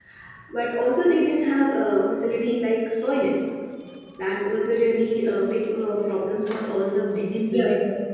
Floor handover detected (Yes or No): Yes